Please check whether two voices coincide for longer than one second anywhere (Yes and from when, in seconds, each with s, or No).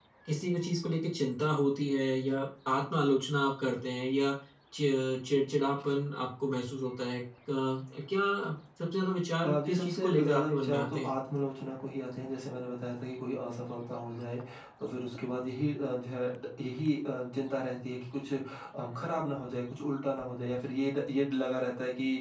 Yes, from 9.4 s